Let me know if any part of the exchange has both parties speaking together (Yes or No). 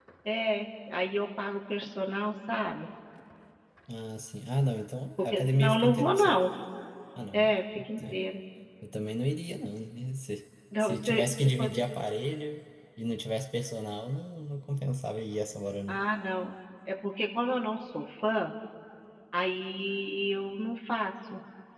Yes